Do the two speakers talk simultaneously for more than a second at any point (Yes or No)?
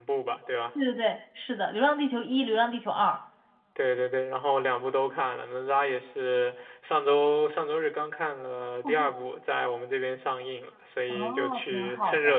Yes